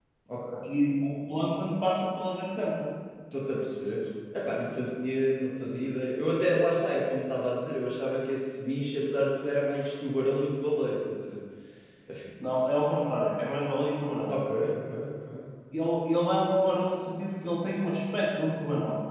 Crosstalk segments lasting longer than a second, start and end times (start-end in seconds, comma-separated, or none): none